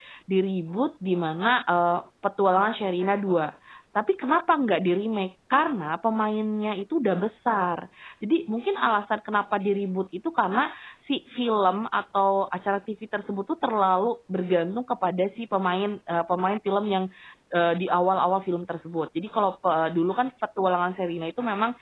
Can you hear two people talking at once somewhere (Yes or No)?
No